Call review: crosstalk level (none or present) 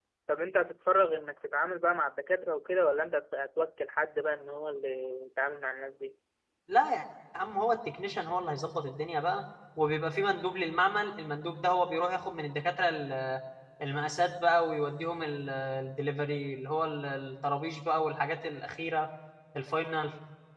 none